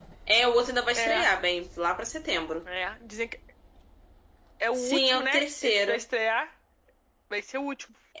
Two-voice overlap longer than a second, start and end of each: 4.8-6.0

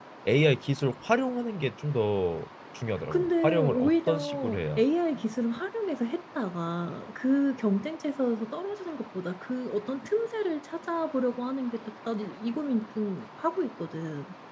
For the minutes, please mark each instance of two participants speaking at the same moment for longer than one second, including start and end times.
3.1-4.8

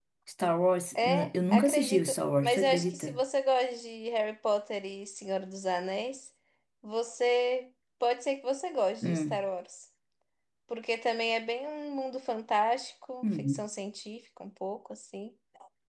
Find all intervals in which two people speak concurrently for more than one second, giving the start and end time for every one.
1.0-3.2

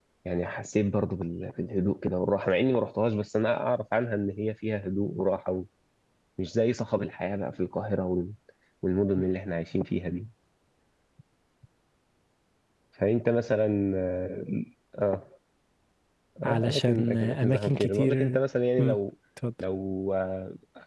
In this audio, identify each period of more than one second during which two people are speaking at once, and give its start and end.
16.4-18.4

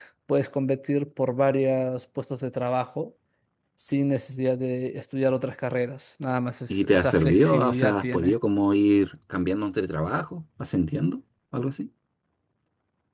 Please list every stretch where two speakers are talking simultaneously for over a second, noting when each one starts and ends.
6.7-8.3

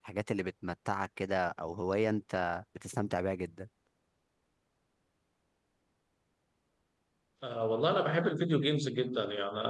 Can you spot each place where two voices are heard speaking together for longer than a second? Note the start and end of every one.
none

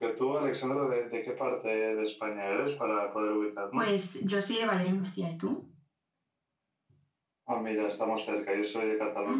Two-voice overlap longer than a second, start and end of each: none

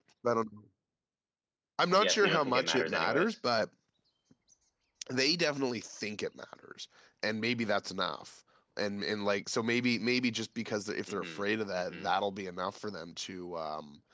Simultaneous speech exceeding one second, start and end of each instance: 2.0-3.4

